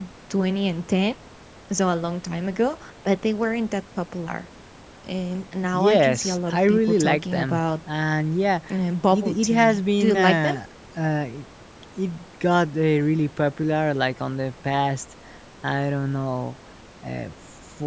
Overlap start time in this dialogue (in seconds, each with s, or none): 5.7 s